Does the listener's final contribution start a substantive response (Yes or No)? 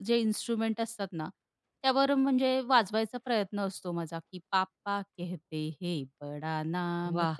No